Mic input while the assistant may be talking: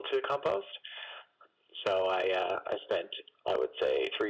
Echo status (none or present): present